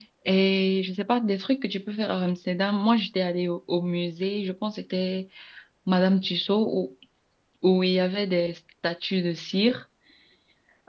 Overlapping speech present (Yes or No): No